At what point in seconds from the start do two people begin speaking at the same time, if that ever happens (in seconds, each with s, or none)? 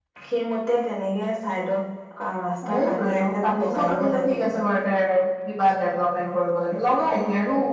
2.7 s